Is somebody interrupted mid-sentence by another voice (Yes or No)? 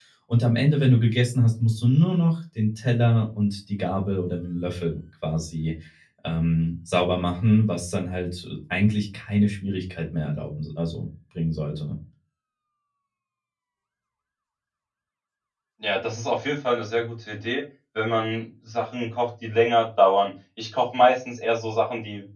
No